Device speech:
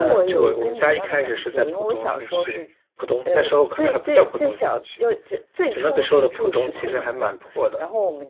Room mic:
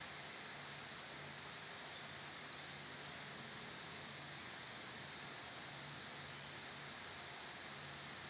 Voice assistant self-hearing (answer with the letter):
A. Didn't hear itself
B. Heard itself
A